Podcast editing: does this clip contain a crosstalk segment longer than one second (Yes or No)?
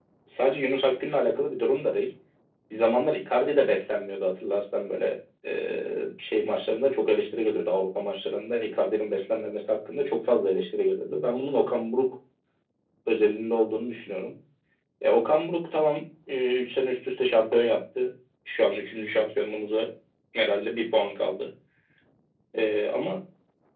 No